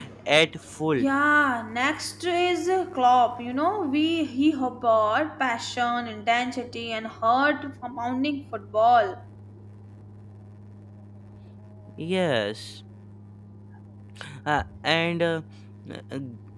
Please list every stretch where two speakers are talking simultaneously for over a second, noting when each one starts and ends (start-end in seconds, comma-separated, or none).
none